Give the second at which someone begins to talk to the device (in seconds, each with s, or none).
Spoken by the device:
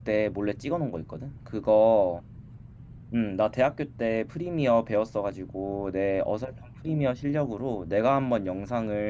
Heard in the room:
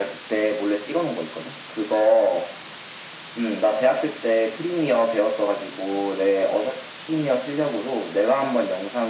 none